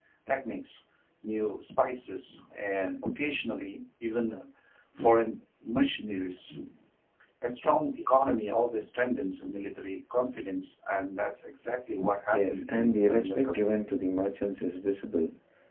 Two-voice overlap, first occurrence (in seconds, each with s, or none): 12.3 s